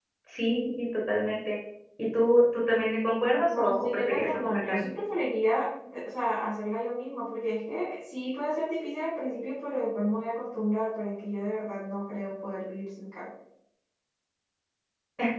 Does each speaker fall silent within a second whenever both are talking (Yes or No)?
No